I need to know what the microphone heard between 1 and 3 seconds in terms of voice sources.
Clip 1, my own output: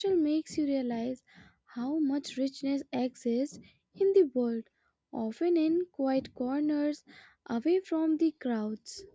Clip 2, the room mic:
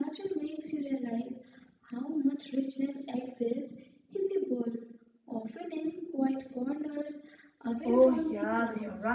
echo only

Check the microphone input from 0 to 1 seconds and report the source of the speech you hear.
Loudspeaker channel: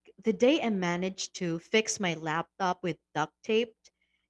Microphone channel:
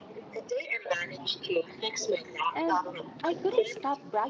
echo only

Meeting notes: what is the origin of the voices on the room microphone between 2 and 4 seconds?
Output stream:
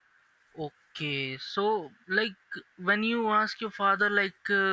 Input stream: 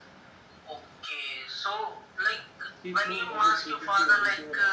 both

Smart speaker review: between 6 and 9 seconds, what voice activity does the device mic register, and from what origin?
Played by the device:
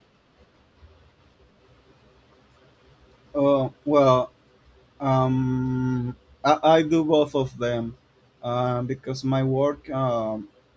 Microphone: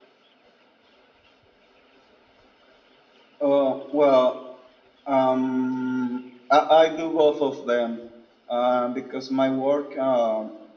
echo only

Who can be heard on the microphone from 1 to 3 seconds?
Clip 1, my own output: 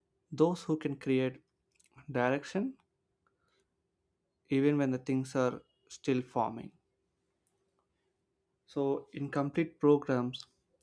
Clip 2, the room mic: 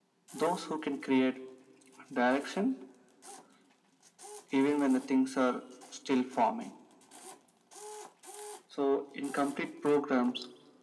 echo only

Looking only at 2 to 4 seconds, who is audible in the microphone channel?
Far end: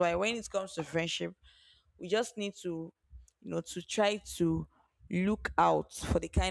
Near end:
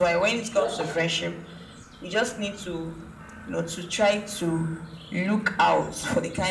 echo only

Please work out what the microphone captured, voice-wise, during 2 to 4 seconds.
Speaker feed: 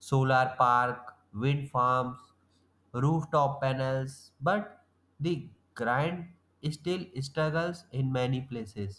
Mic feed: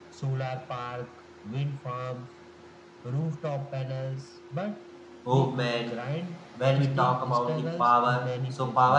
echo only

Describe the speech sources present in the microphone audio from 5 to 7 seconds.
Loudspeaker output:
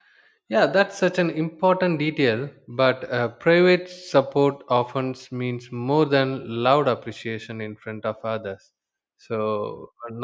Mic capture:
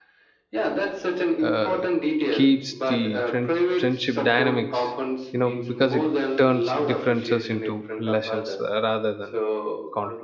both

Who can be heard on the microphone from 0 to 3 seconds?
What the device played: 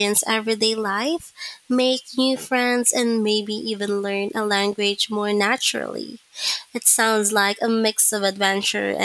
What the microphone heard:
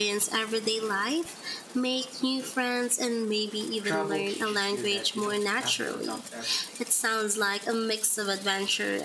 echo only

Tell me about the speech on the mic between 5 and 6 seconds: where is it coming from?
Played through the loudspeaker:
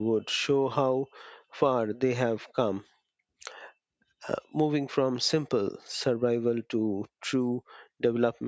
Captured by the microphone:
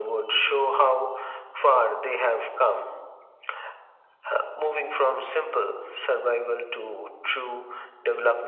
echo only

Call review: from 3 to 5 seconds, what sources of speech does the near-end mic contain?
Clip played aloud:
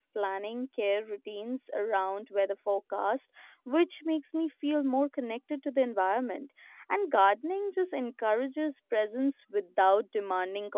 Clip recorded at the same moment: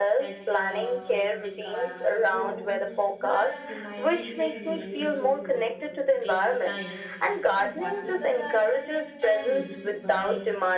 both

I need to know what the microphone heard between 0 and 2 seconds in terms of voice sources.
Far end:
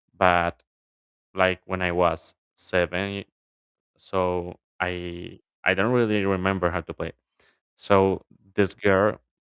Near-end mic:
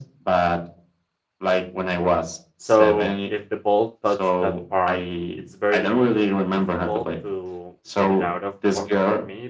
echo only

